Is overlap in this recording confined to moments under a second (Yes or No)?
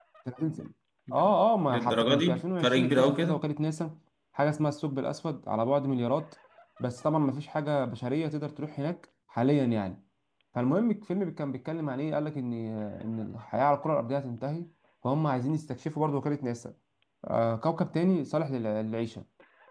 No